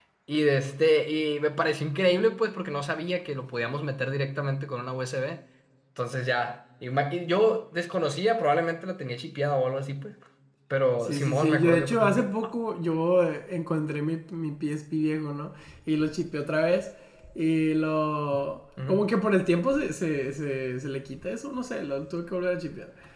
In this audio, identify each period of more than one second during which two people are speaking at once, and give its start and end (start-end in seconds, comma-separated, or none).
11.0-12.3